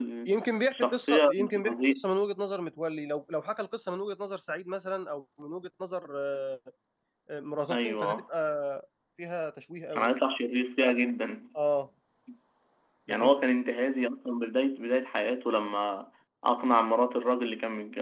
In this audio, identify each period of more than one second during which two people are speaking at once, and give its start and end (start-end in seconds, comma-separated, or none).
0.7-2.0